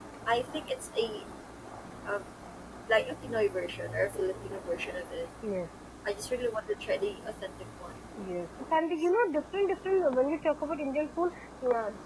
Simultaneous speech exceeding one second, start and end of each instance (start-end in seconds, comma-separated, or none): none